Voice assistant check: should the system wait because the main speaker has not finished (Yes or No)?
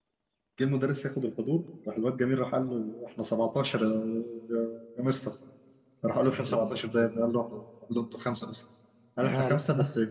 Yes